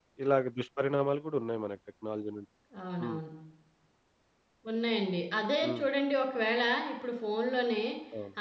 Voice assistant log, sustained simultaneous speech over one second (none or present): none